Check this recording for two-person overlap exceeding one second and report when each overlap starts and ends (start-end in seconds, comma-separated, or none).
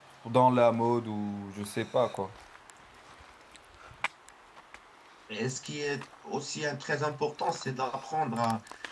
none